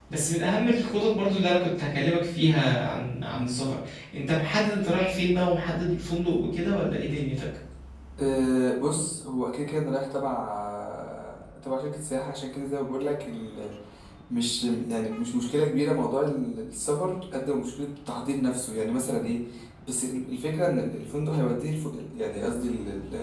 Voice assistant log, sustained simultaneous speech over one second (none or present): none